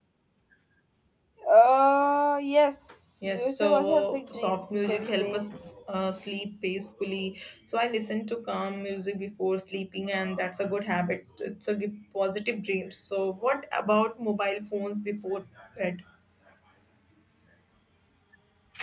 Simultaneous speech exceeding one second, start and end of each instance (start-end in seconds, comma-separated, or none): 3.3-5.4